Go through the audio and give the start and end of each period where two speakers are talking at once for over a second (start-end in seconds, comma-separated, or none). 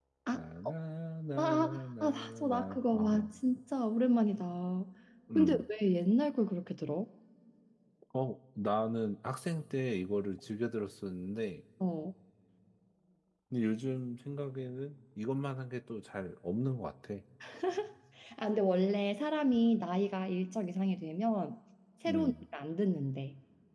1.4-3.3